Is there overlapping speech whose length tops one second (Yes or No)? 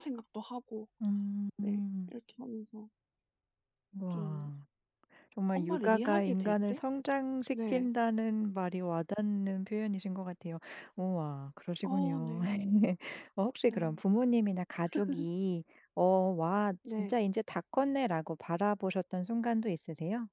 Yes